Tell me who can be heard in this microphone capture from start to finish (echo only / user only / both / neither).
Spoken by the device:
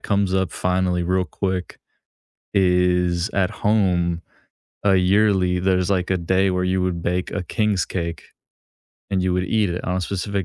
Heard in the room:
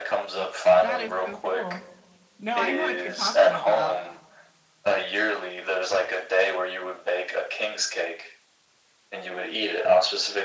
both